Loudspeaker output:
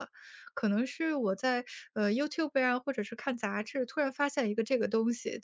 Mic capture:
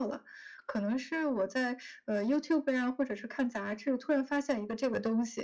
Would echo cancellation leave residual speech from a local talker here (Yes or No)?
No